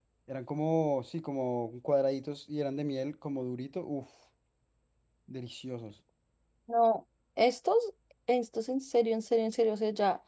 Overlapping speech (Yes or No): No